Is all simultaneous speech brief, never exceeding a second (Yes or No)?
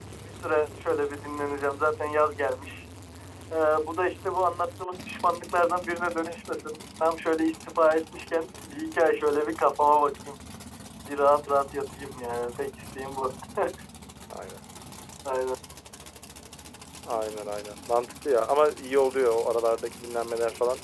Yes